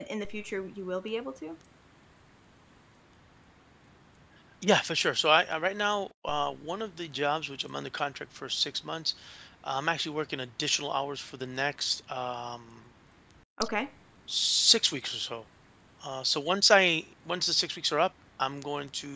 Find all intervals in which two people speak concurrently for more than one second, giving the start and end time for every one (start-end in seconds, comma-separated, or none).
none